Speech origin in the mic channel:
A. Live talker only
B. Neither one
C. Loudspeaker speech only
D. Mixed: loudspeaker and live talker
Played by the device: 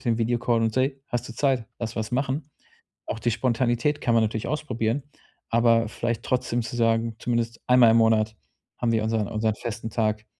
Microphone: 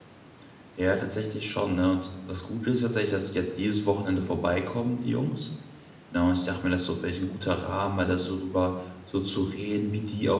A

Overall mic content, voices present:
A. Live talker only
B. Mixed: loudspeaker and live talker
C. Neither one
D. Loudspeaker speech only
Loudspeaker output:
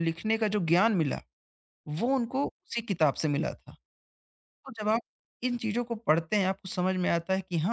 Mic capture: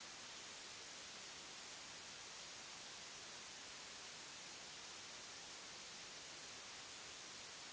C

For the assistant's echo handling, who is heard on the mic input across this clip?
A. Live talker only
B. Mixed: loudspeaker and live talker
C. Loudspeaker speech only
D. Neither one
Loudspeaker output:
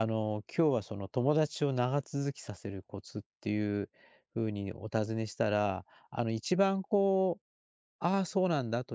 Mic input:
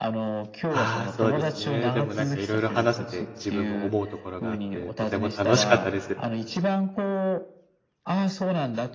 B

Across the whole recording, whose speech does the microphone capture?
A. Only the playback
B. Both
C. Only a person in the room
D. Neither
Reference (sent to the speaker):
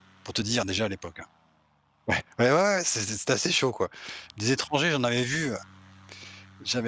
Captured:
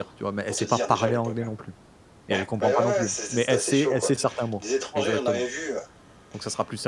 B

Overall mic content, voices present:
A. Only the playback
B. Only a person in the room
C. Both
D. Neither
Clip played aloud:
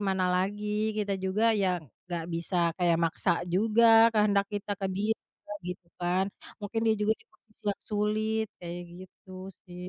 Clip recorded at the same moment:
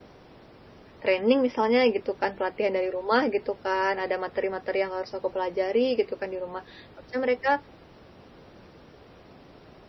B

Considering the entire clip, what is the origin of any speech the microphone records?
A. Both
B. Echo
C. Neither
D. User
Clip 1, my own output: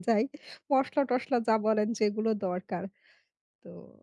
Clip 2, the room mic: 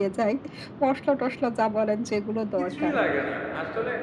A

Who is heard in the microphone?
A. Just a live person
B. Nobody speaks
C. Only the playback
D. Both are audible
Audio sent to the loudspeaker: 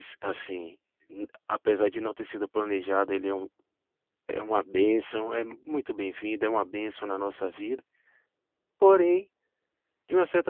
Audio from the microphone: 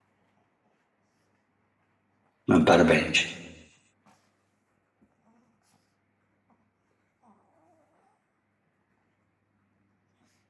A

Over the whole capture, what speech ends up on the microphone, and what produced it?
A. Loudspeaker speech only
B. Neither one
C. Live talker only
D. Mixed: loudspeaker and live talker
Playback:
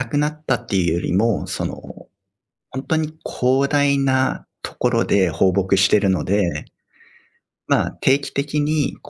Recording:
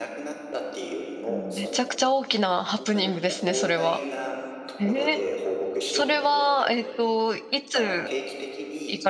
D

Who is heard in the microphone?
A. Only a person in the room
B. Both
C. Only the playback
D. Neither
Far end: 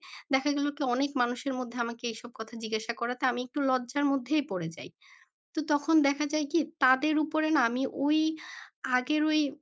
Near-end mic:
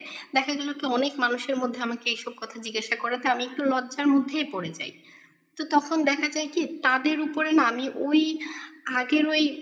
C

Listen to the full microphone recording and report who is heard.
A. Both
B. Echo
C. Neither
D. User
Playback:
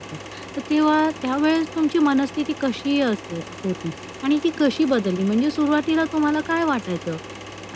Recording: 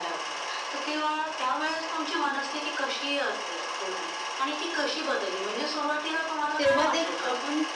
A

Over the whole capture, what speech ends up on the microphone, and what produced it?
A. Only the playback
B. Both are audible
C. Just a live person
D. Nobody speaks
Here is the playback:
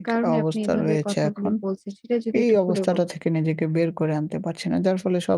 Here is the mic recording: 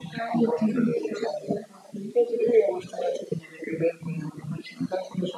A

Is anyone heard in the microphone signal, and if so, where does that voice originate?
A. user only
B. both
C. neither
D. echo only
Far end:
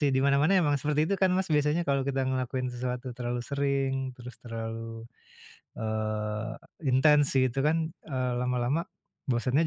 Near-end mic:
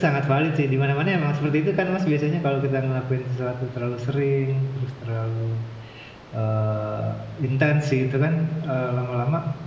D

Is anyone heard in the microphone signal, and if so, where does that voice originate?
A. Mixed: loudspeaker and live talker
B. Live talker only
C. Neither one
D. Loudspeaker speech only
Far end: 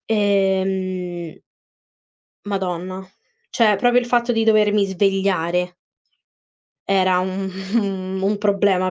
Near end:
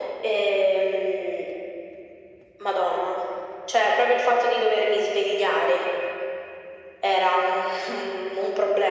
D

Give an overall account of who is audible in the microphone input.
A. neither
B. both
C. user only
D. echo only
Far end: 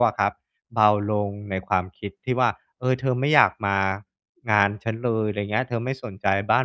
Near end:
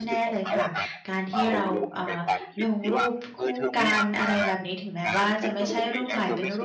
B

